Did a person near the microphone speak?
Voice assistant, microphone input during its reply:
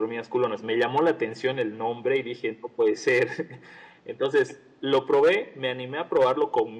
No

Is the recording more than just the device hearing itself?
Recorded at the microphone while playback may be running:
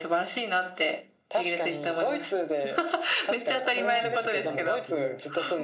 Yes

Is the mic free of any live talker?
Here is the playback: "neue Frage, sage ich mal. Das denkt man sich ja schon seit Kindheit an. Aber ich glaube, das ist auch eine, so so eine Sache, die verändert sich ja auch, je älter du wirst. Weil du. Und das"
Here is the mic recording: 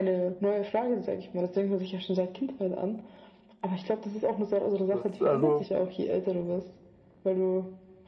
No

